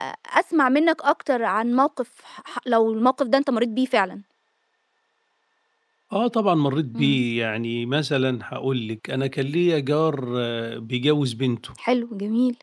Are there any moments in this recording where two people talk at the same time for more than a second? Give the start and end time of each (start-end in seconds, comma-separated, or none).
none